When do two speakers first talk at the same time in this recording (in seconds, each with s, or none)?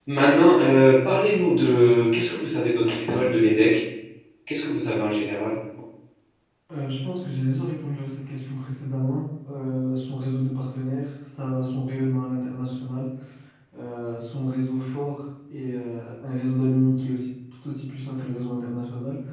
none